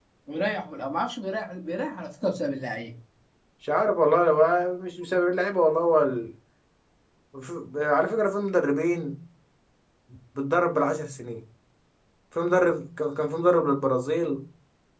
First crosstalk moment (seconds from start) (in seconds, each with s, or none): none